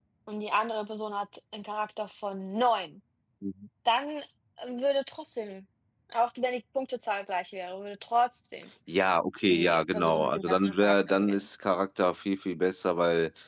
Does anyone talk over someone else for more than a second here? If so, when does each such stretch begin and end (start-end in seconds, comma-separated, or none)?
9.5-11.5